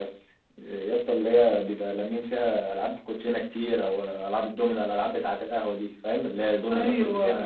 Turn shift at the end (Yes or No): Yes